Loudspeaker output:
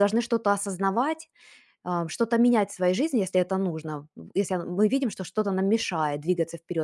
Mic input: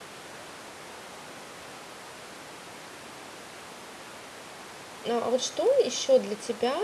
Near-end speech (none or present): present